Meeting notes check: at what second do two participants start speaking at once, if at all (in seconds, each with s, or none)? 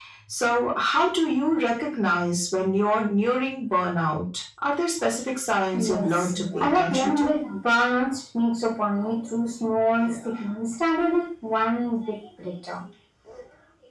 5.7 s